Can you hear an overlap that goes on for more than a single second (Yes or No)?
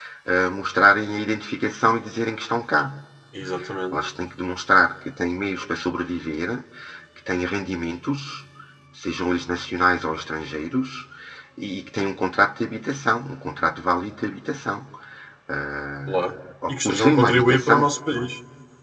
Yes